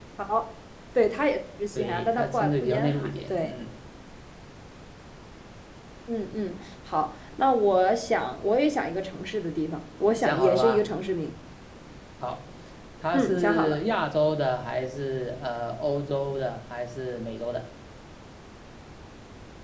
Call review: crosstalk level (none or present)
present